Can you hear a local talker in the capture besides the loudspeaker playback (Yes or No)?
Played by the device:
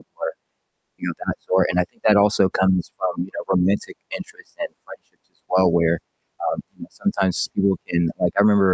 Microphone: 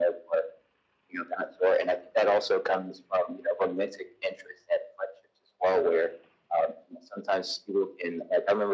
No